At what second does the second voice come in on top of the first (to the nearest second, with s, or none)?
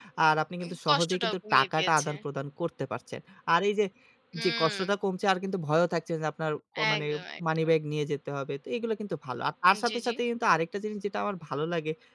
1 s